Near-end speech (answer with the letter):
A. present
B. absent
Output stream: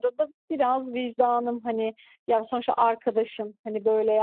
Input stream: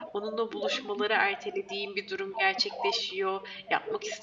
A